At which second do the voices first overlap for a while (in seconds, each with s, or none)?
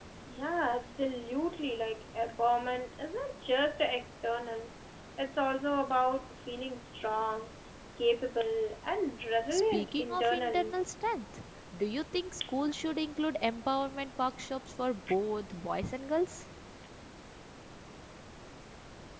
9.5 s